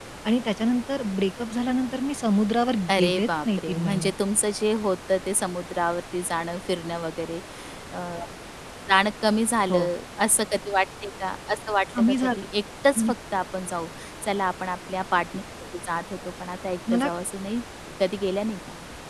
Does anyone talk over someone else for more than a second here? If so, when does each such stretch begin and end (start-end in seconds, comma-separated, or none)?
2.9-4.1